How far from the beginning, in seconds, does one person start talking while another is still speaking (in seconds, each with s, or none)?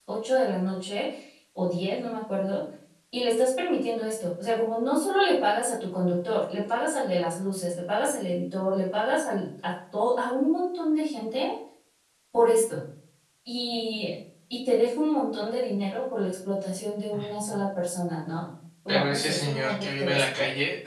18.9 s